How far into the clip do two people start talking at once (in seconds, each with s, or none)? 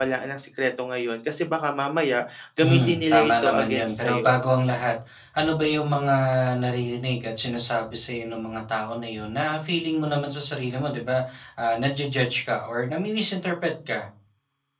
2.6 s